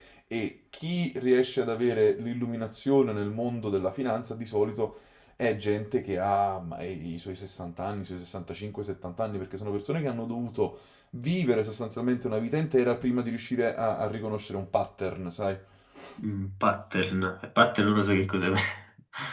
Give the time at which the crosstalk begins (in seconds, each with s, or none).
none